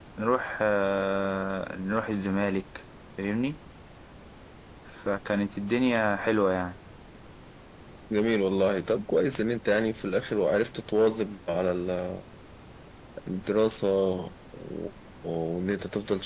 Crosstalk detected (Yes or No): No